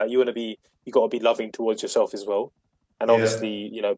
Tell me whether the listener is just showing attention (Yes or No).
Yes